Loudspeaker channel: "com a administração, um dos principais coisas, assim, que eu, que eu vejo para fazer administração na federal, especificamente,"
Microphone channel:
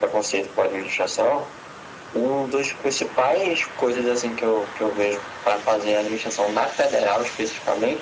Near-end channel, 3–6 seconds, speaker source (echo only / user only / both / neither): echo only